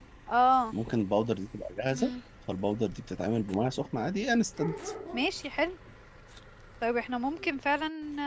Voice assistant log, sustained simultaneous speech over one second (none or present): none